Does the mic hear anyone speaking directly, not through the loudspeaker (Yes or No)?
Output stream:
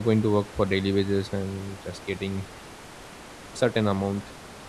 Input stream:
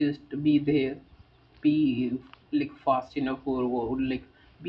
Yes